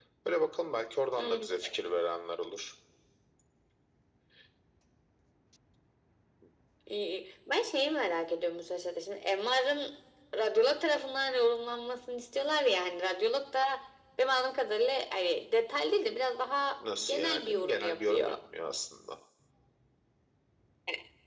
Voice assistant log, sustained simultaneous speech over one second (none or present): present